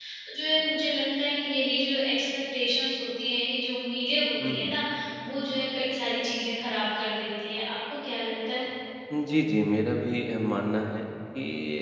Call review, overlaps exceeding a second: none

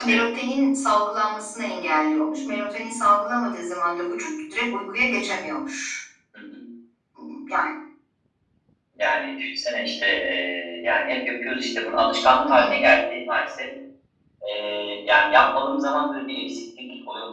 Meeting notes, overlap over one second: none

